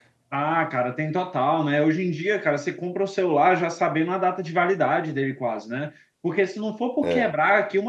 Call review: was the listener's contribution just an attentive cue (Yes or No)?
Yes